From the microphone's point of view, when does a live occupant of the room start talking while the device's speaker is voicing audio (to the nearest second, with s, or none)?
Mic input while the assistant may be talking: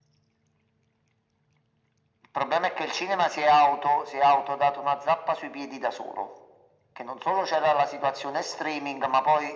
none